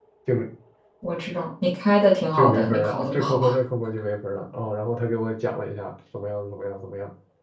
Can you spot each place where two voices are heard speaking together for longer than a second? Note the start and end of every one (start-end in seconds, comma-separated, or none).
2.4-3.6